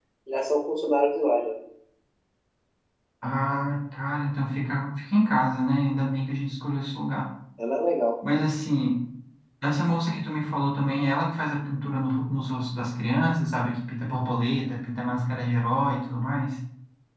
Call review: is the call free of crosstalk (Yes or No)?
Yes